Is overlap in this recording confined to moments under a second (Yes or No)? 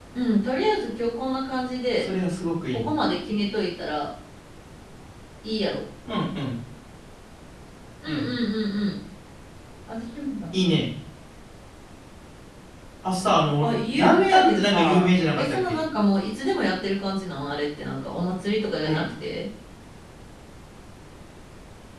No